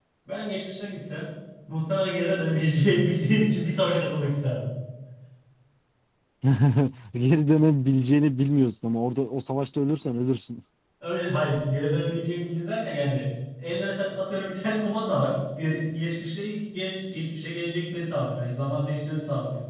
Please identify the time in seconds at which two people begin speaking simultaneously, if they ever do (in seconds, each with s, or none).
none